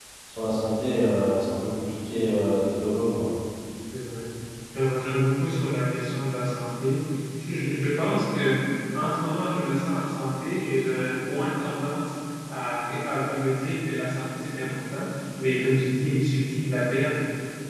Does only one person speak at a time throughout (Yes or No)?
Yes